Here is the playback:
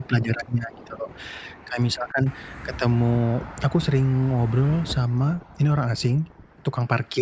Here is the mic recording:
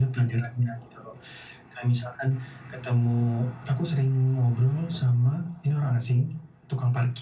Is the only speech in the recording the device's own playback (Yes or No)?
Yes